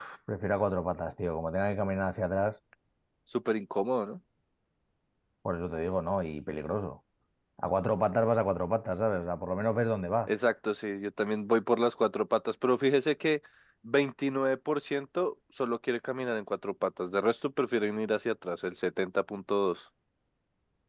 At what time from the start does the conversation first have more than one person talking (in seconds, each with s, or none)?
none